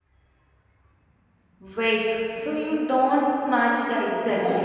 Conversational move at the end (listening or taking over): taking over